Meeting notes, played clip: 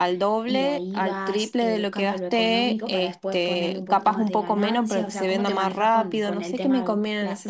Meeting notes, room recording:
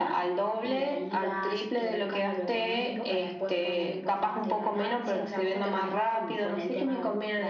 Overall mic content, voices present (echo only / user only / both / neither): echo only